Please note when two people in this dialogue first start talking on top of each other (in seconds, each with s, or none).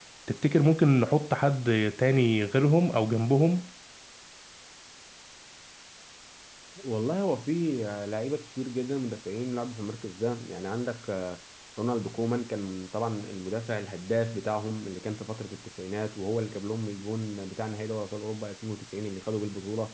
none